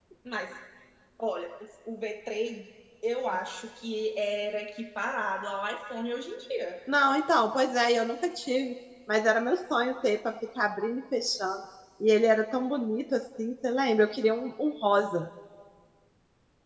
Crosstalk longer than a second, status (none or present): none